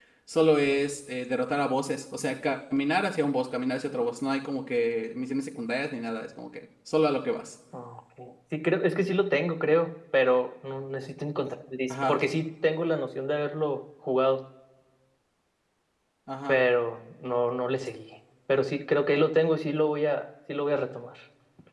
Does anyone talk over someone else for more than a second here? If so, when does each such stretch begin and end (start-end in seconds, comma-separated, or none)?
none